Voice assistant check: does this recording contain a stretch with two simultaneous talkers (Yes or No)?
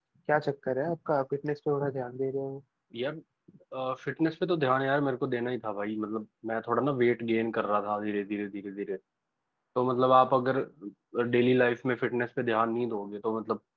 No